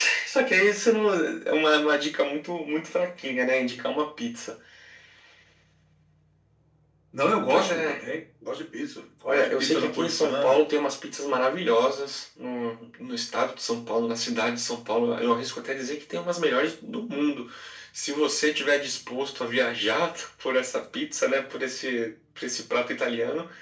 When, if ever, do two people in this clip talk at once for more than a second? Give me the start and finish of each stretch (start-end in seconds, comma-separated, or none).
9.3-10.6